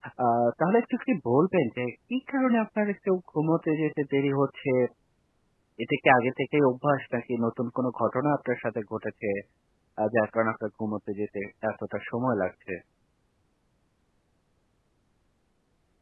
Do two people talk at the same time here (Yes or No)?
No